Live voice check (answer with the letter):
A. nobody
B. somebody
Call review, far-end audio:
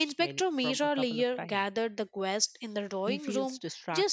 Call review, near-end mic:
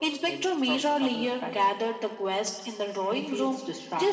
A